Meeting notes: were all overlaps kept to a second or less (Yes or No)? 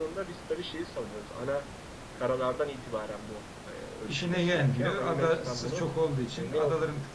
No